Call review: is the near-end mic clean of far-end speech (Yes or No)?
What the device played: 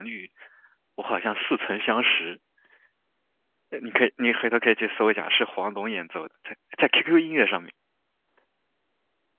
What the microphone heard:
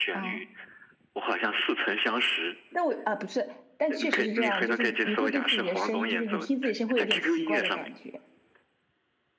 No